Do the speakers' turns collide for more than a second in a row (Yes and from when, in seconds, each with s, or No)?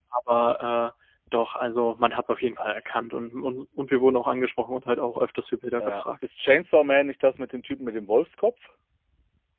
No